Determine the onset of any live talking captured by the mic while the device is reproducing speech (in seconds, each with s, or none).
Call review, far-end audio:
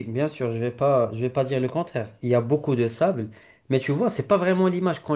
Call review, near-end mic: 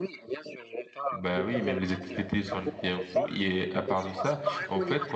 1.1 s